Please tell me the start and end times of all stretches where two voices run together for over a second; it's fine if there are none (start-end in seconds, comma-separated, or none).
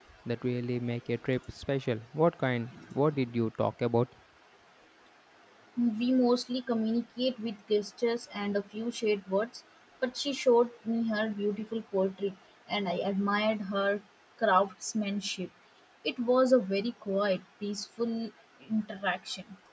none